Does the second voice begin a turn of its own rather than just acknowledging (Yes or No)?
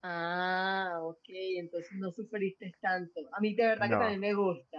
No